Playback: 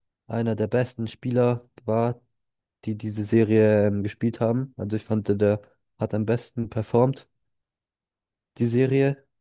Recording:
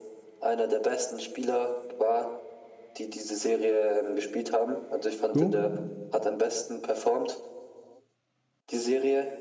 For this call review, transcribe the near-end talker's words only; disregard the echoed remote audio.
Du?

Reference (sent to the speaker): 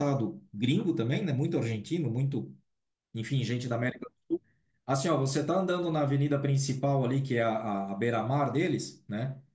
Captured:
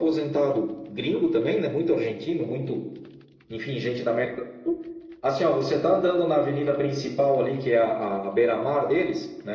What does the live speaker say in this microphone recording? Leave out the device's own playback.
none

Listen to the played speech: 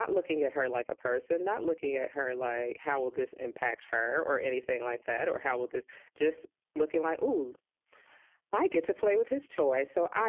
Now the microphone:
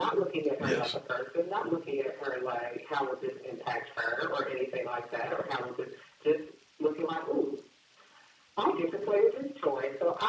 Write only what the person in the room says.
Yes.

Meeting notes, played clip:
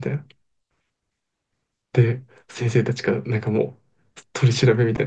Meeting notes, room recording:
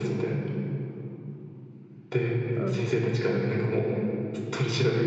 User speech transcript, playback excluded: うん。

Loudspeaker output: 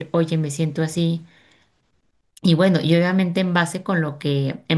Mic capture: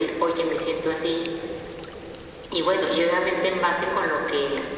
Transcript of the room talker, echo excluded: none

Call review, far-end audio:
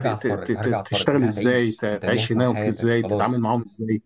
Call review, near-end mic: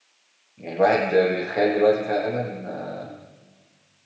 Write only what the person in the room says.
يعني الواحد بيتخيل دلوقتي فعلا آه،

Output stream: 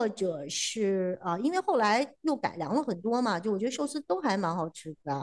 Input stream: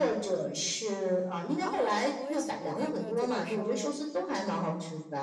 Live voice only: 啊，我也喜欢那个铁板烧，

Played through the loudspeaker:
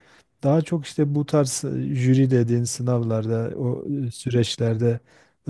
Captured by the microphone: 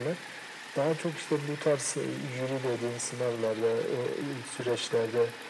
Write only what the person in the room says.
none

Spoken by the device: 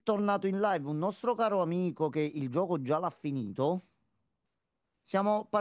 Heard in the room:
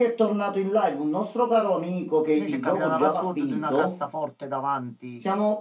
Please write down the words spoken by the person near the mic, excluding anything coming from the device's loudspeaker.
Noi ci è capitata una password di una cassaforte davanti

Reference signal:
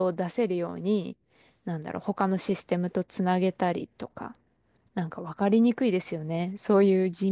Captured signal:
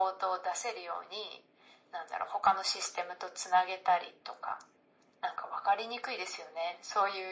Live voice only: none

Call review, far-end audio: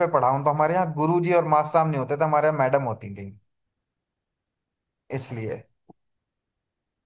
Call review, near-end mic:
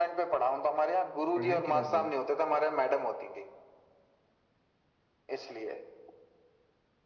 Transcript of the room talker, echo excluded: पढ़ाई किधर हुई

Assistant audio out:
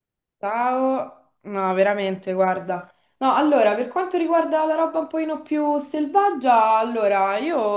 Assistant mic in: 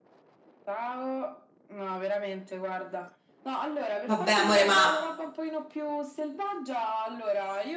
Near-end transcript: Vabbè, amore, ma,

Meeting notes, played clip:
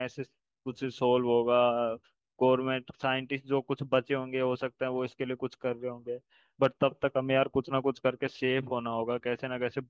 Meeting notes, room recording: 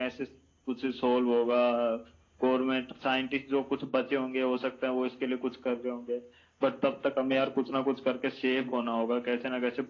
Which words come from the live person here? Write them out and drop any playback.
none

